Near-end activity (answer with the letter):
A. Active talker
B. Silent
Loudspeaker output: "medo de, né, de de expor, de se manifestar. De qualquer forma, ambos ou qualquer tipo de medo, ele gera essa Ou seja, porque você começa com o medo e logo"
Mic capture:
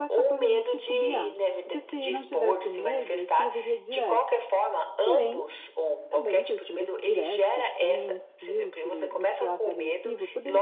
A